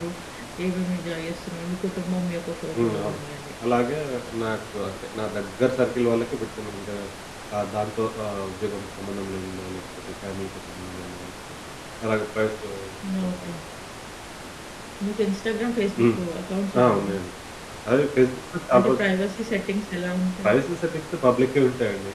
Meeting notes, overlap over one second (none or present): none